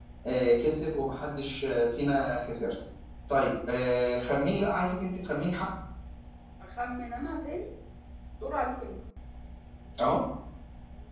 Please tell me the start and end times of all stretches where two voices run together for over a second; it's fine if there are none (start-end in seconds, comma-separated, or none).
none